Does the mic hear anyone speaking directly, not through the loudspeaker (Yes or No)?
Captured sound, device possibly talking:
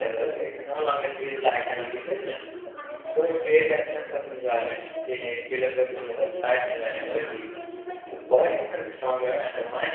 Yes